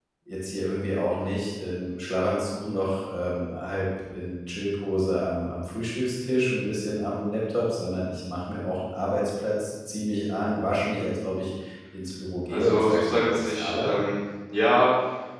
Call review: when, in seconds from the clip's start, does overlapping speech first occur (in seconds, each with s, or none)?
12.5 s